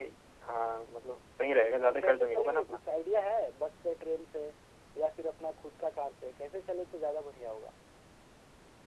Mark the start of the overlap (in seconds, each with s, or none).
1.5 s